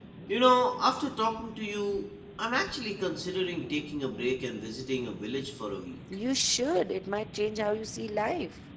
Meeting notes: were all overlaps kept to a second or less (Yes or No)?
Yes